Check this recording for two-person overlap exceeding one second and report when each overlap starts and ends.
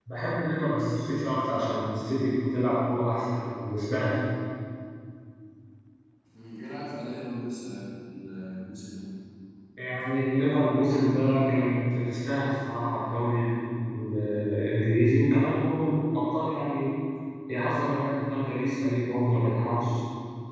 none

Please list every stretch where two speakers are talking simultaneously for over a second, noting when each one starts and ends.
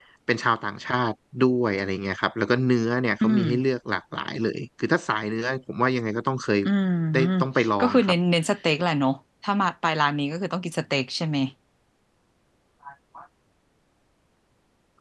none

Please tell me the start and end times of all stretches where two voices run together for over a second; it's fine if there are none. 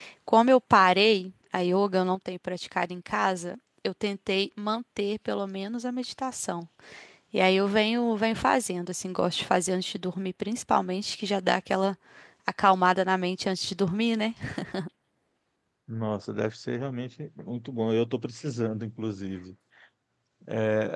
none

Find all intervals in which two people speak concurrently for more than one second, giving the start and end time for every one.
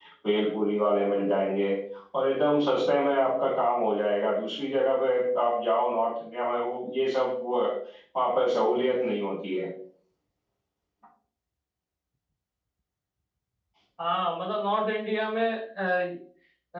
none

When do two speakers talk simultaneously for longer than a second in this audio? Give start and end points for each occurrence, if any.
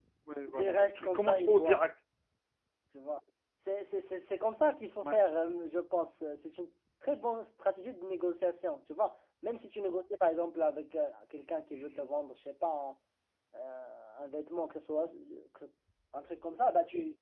0.5-1.8

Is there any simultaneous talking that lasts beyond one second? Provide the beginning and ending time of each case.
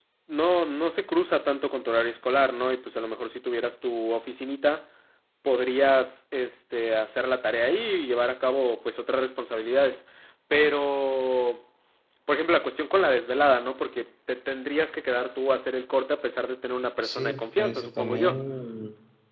17.0-18.4

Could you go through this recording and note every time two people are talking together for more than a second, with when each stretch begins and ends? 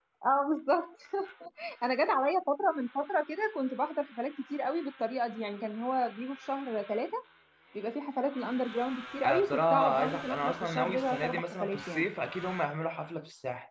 9.2-12.1

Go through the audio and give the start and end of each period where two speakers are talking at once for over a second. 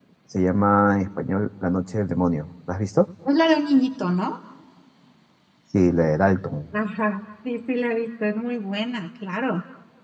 none

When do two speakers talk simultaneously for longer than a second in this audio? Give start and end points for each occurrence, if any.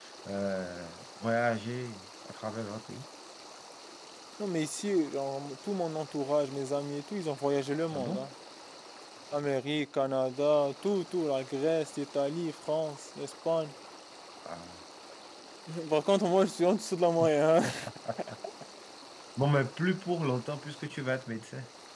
none

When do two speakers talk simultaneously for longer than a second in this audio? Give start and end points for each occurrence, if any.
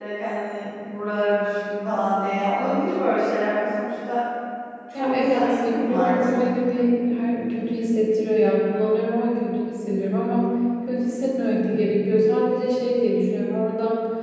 4.9-6.3

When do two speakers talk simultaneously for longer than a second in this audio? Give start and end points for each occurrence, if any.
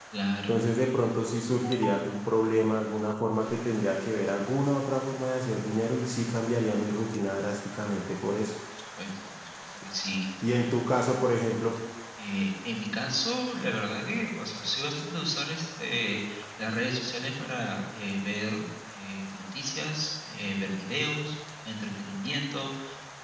none

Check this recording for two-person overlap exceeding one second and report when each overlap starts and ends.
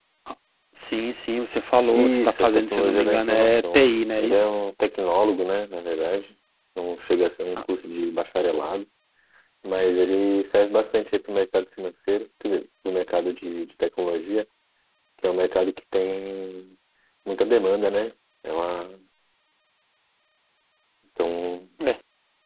2.0-4.4

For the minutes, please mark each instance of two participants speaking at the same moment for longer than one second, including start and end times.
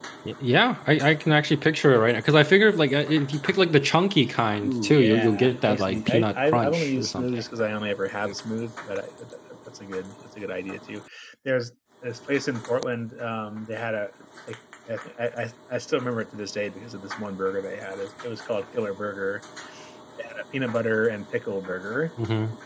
4.6-7.3

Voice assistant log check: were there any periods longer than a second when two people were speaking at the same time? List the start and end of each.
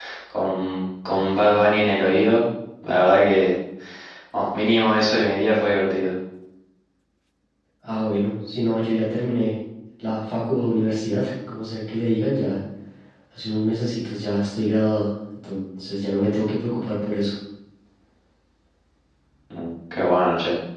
none

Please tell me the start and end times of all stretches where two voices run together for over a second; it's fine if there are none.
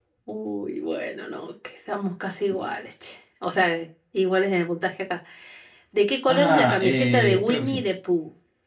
6.3-7.9

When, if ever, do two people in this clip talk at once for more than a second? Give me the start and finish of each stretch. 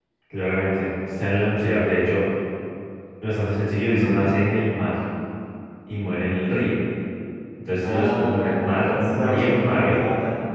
7.8-9.9

